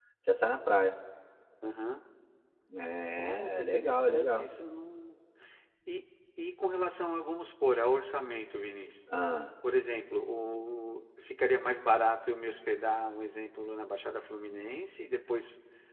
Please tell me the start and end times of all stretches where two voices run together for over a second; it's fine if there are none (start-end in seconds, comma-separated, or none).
3.2-4.5